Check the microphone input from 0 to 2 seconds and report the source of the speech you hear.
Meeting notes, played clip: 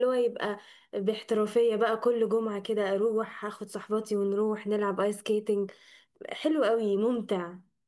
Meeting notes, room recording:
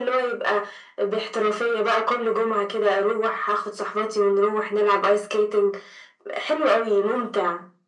echo only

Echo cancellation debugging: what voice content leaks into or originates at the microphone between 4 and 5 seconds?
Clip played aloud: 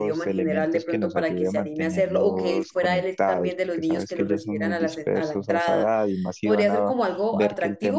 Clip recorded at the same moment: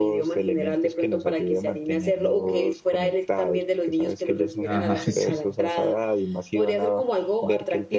both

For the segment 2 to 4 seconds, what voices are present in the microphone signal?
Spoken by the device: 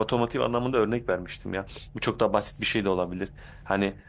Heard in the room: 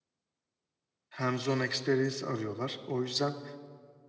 user only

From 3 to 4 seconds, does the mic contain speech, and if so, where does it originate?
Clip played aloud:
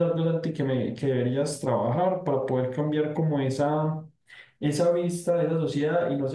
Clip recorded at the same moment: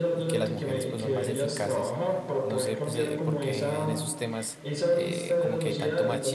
both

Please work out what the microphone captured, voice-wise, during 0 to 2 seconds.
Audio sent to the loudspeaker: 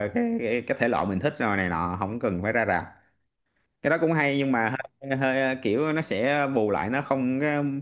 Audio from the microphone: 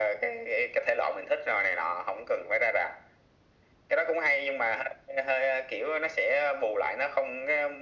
echo only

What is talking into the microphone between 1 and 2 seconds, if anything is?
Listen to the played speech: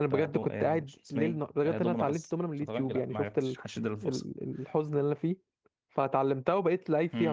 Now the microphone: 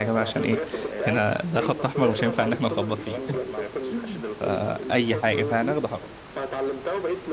both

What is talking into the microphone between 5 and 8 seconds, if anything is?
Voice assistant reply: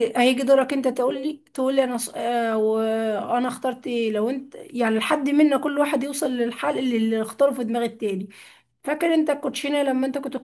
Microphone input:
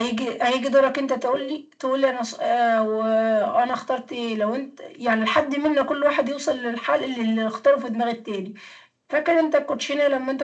echo only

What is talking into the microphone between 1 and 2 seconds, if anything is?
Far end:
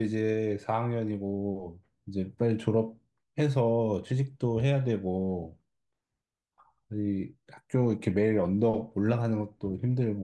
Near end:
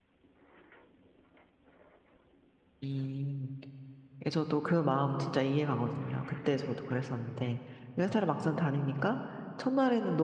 neither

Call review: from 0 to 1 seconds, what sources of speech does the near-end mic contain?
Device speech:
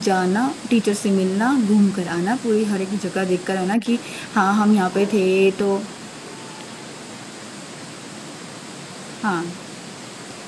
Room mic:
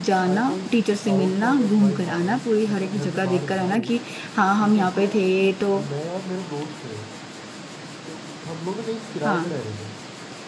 both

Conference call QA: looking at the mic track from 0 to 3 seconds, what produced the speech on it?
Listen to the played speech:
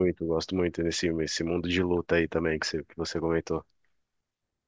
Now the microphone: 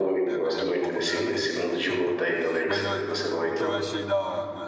both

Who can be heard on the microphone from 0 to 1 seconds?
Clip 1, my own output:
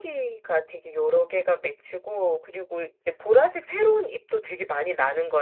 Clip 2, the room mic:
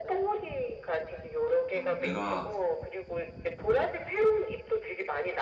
echo only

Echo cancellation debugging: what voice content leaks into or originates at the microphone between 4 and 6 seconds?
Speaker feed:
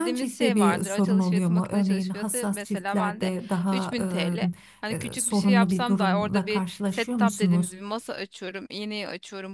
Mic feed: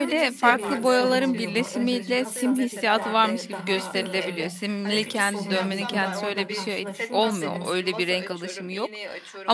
both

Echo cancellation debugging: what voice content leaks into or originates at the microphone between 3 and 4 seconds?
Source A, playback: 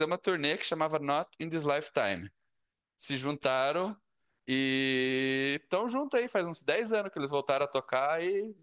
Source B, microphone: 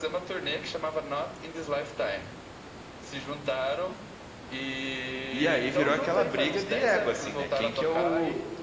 echo only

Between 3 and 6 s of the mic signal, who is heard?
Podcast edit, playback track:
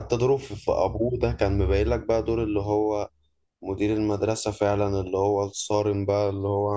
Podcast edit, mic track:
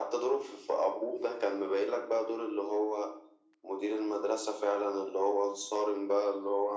echo only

